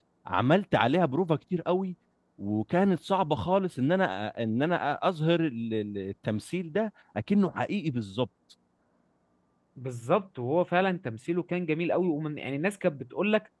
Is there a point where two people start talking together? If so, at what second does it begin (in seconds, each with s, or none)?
none